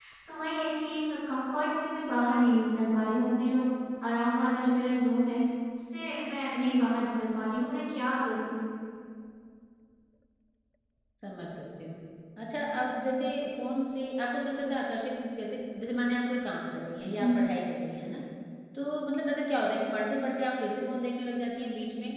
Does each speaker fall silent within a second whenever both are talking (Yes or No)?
Yes